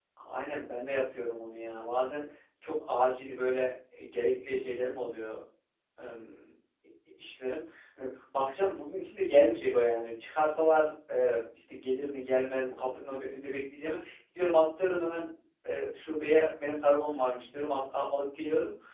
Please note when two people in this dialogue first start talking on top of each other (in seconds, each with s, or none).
none